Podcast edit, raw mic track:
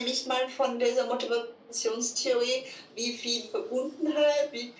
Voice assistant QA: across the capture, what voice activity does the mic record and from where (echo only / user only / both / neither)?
echo only